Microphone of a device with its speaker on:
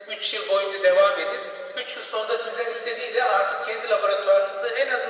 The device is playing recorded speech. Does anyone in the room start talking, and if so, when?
none

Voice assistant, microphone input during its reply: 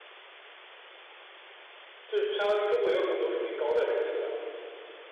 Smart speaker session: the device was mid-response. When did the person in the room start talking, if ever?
2.1 s

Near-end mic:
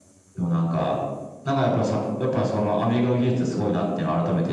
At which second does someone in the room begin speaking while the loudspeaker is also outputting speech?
none

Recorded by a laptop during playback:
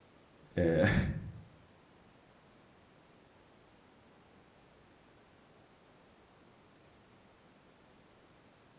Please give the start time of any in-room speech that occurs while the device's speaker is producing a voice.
0.6 s

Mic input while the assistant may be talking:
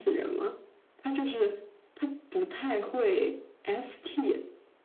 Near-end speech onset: none

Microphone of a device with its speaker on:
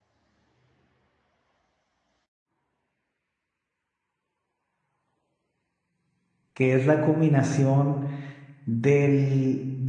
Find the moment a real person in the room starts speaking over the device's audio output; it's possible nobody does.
6.5 s

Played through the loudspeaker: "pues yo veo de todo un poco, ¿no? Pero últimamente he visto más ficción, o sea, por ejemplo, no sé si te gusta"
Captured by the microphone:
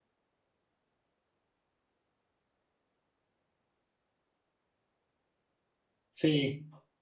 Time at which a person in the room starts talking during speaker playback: 6.1 s

